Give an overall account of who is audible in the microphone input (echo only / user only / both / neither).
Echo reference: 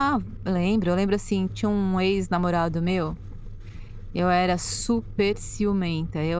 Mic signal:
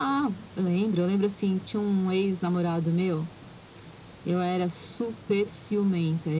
echo only